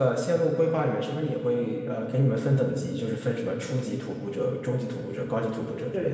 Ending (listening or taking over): taking over